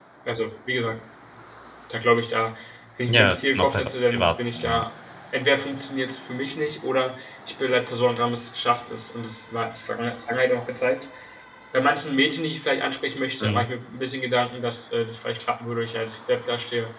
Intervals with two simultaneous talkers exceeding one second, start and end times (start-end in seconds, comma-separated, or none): 3.1-4.8